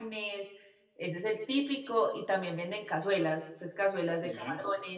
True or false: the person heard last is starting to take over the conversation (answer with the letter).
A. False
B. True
A